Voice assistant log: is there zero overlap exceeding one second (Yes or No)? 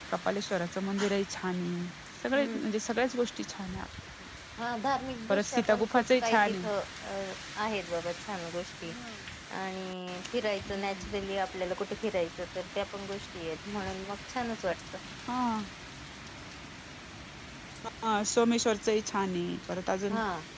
No